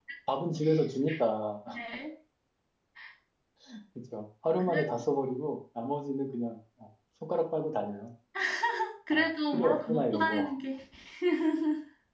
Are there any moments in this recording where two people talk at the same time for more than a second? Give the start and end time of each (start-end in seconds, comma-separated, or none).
9.1-10.5